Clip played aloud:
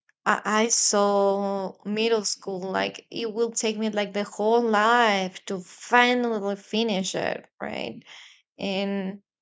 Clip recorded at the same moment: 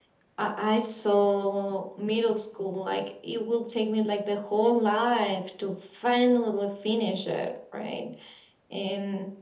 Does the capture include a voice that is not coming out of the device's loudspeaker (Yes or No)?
No